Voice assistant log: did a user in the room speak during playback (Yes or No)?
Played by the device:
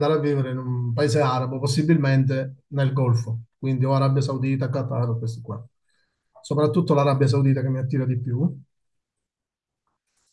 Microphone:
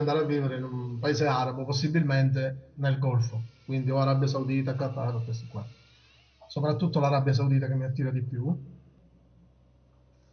No